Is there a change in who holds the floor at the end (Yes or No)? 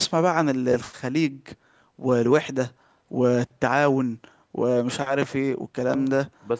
Yes